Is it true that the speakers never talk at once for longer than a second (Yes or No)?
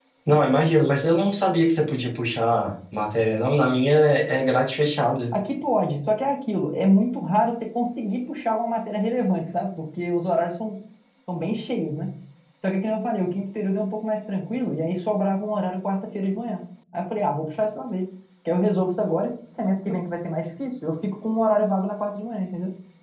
Yes